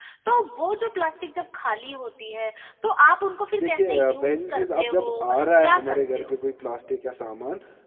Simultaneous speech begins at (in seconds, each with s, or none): 3.5 s